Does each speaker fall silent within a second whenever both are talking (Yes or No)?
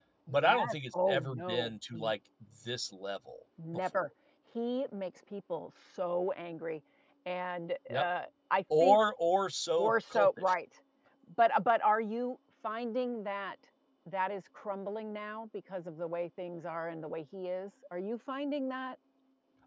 No